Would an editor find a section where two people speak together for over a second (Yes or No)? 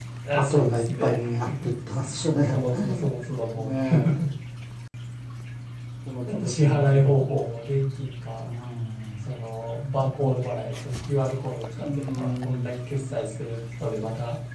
Yes